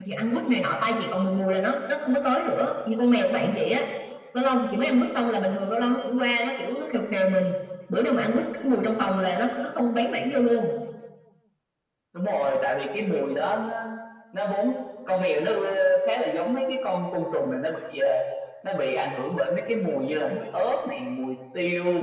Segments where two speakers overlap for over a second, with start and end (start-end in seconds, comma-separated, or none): none